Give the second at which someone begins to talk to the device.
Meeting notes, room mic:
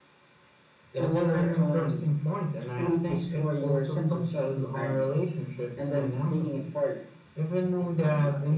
none

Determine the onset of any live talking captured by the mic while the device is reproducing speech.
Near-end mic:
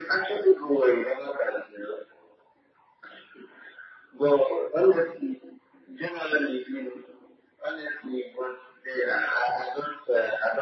none

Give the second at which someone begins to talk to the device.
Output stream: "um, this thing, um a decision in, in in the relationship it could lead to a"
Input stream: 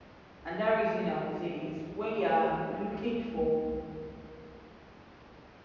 0.4 s

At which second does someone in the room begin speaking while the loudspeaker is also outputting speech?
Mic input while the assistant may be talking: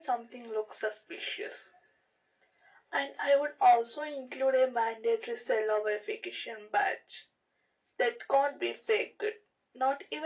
none

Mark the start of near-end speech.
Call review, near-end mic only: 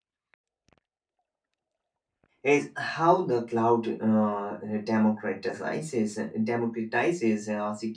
2.4 s

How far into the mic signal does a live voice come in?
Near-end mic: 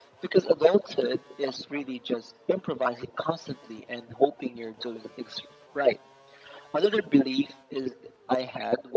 none

